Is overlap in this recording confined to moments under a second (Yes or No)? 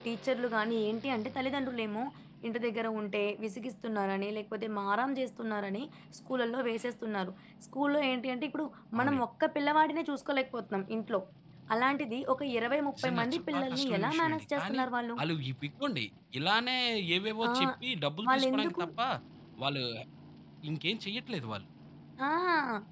No